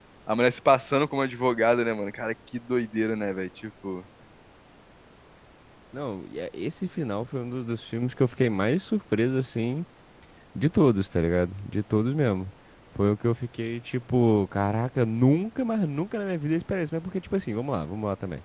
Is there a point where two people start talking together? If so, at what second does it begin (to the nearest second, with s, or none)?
none